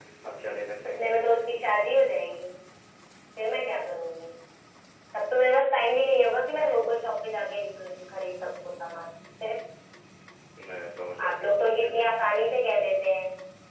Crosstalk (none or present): present